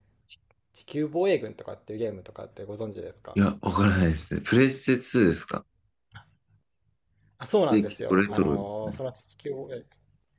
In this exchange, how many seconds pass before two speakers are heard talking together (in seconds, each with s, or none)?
7.7 s